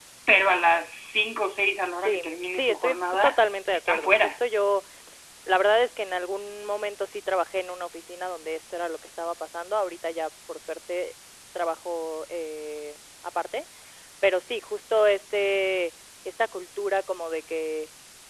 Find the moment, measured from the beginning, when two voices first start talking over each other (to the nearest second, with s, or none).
2 s